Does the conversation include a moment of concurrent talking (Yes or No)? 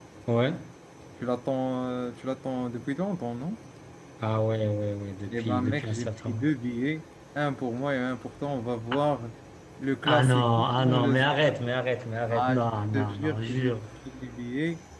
Yes